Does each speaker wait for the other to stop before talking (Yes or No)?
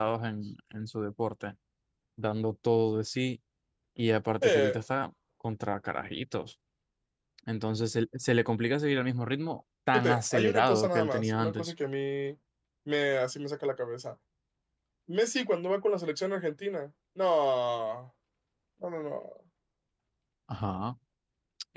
No